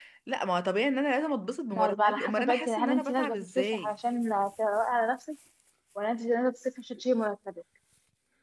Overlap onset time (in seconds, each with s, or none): 1.7 s